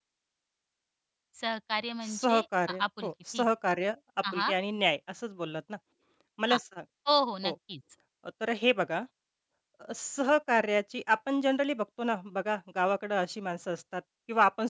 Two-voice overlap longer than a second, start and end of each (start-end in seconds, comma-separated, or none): 2.1-3.5